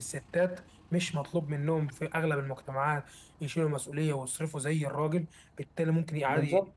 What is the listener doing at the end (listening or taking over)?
listening